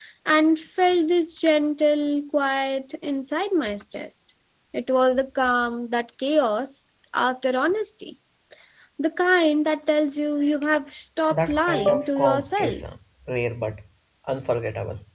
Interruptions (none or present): present